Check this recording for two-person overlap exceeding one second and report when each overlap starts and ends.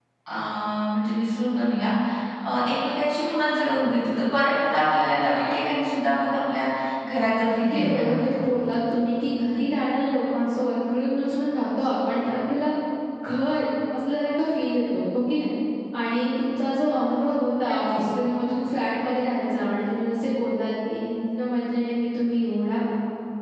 7.2-8.4

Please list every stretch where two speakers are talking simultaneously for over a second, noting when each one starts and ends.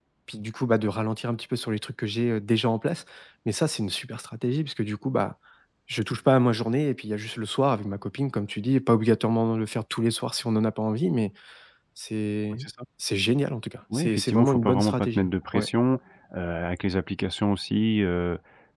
13.9-15.7

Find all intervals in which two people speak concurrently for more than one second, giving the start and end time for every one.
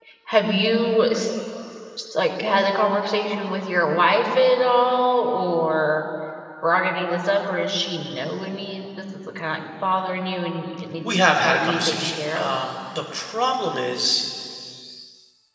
11.0-12.5

